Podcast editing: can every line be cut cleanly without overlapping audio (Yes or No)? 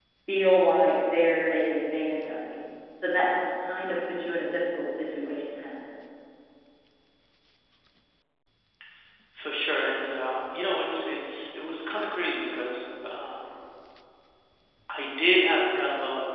Yes